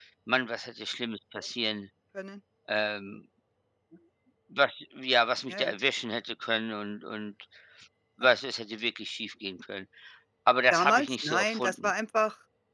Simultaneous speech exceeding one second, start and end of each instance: 10.7-11.9

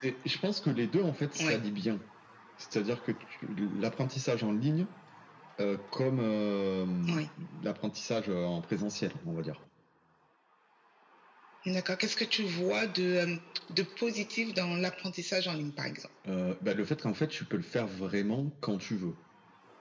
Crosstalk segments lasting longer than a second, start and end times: none

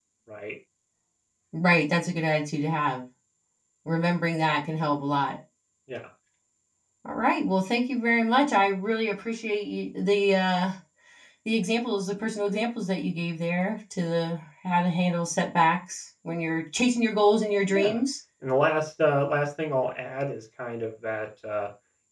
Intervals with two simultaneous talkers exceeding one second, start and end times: none

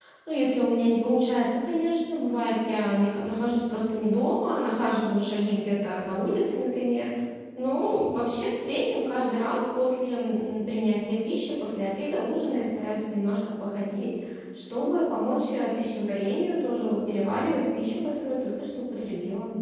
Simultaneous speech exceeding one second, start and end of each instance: none

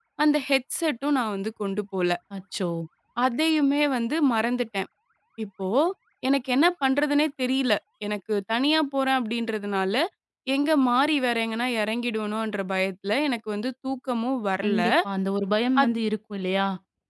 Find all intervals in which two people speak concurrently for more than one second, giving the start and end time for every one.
none

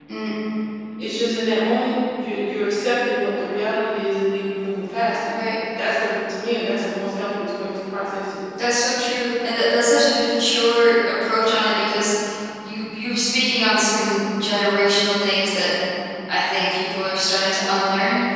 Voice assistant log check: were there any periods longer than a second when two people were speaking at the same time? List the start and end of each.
none

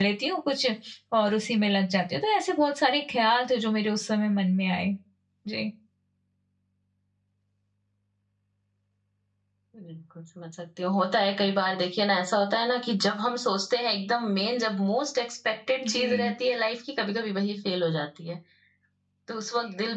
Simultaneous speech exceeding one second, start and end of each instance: none

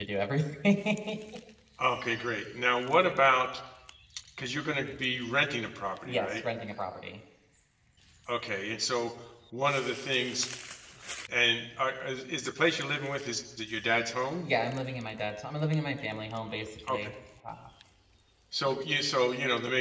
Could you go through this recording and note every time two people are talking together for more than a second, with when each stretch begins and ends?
none

